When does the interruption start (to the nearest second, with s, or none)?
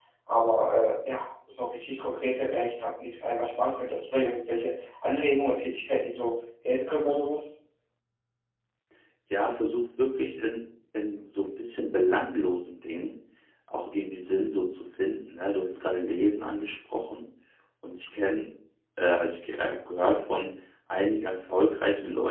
none